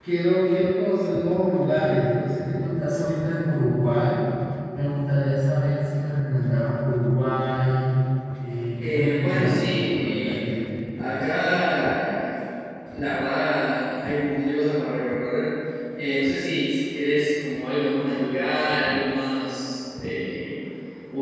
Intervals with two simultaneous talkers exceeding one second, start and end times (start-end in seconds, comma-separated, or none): 8.8-10.4